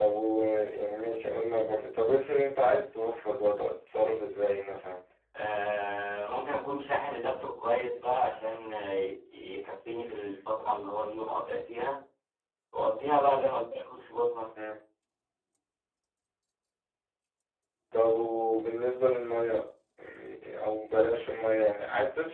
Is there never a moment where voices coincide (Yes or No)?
Yes